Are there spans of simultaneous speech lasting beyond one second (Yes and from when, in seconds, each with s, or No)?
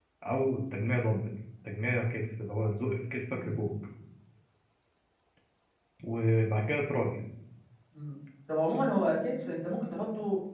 No